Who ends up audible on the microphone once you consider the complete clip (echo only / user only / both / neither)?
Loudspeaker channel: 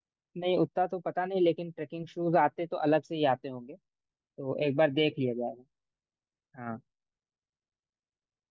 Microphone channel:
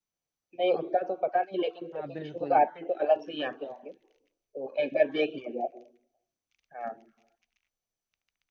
both